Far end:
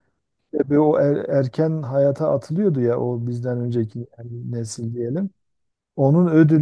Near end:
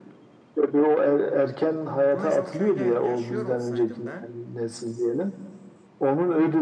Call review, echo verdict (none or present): present